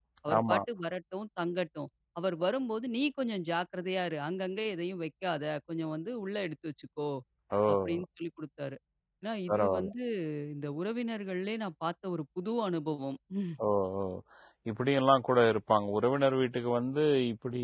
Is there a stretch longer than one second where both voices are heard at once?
No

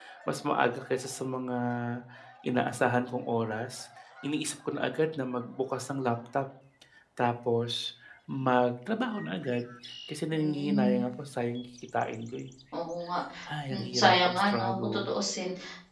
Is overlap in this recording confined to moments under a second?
No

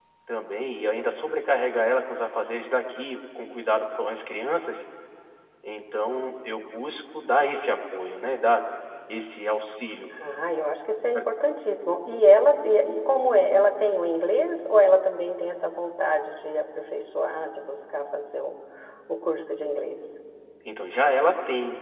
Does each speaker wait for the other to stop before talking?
Yes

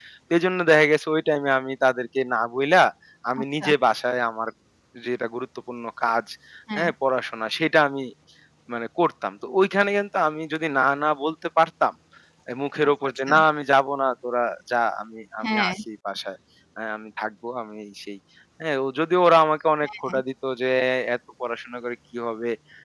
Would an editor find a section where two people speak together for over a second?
No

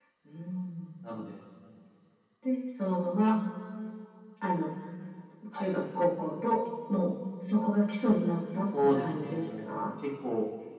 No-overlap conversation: No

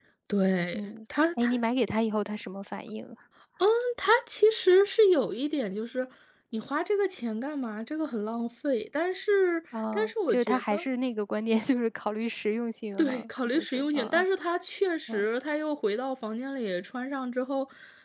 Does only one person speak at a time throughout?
No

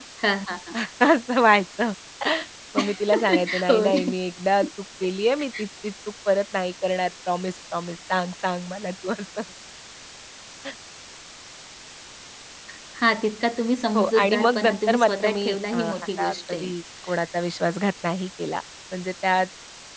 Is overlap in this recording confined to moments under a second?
No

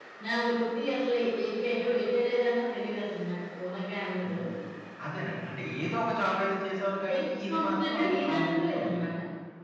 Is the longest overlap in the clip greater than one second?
Yes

